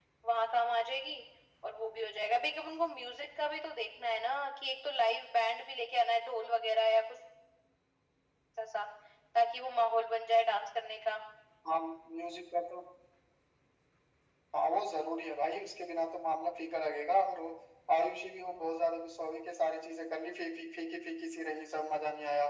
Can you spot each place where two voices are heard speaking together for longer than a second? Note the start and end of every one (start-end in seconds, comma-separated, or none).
none